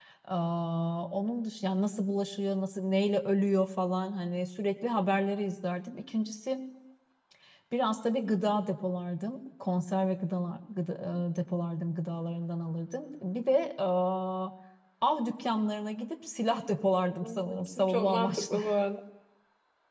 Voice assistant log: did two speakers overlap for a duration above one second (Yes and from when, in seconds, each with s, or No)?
Yes, from 17.2 s